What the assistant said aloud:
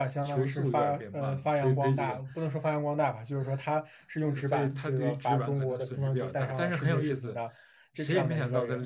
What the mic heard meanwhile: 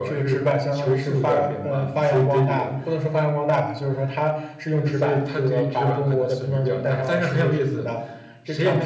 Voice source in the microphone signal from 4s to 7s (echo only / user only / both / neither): echo only